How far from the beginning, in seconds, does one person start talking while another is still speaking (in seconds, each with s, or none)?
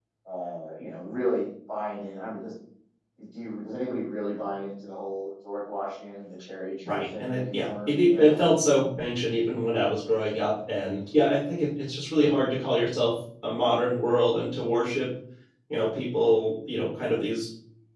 6.8 s